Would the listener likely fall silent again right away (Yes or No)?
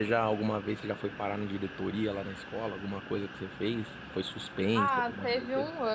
No